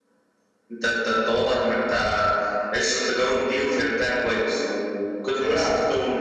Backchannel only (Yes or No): Yes